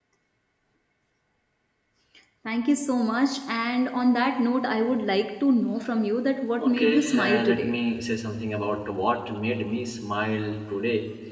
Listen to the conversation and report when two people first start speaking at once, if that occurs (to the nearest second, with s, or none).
7 s